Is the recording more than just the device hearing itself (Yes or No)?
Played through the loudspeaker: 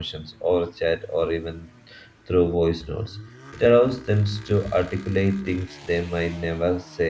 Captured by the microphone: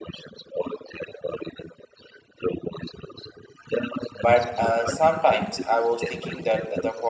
Yes